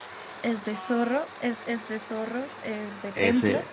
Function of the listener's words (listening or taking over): listening